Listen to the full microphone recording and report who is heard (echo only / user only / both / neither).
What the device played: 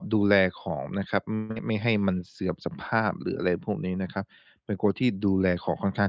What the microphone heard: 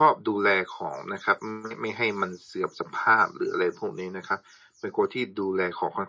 echo only